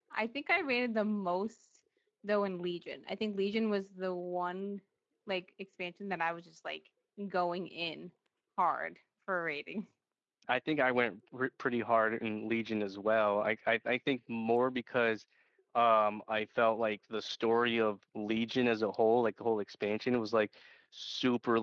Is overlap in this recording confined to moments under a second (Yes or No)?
Yes